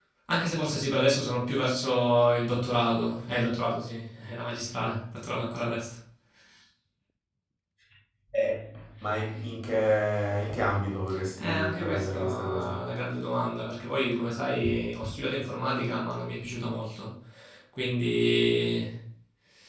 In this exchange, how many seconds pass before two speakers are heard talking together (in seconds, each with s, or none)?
11.4 s